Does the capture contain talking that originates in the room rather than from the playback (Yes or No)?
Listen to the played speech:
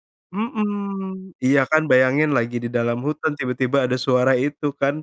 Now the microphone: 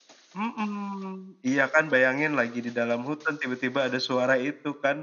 No